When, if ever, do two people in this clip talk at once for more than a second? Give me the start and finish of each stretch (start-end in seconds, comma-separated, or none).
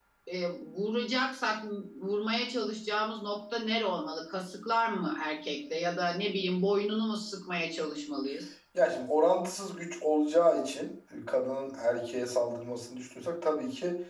none